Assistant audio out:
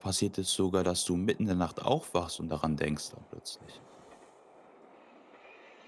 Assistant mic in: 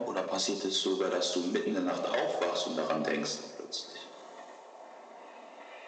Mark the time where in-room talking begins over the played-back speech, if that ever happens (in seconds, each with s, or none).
none